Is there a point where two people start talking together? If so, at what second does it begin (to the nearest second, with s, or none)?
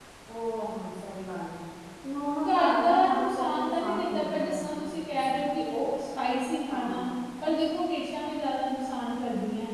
2 s